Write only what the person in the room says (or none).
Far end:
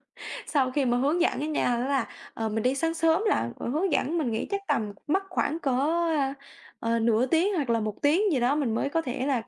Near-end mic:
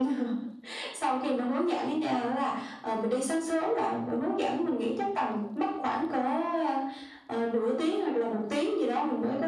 none